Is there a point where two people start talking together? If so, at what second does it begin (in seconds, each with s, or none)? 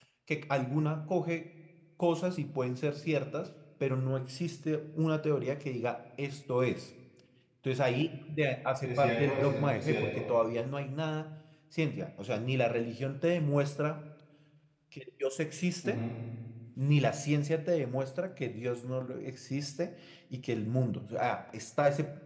8.8 s